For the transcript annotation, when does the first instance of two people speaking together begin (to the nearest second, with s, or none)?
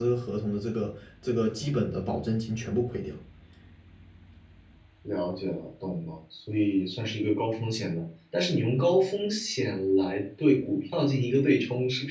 none